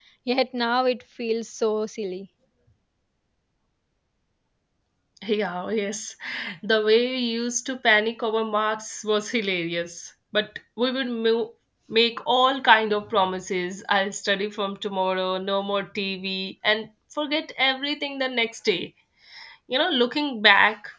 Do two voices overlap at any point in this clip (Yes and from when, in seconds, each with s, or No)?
No